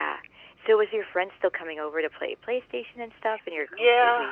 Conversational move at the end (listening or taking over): taking over